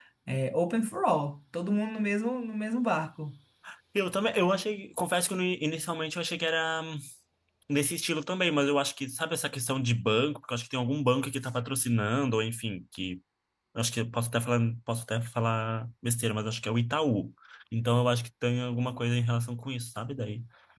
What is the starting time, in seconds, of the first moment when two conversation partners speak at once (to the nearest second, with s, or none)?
none